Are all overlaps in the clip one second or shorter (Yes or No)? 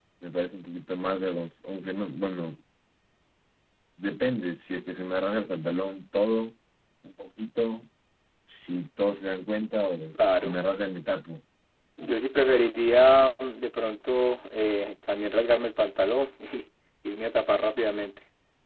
Yes